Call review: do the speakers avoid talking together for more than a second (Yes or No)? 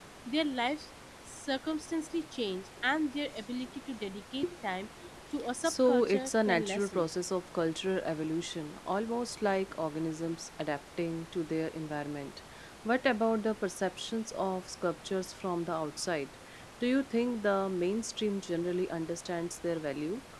No